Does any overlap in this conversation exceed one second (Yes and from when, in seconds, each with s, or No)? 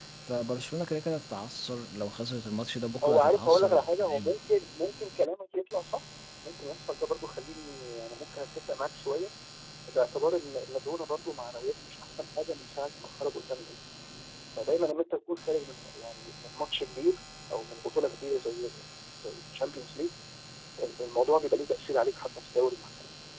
Yes, from 3.0 s